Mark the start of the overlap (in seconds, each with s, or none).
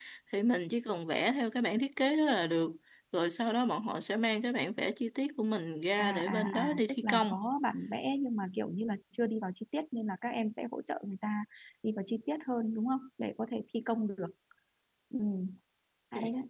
6.0 s